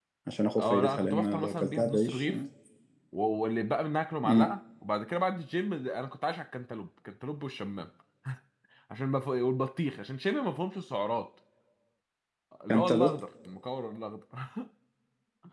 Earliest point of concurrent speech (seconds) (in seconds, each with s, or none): 0.6 s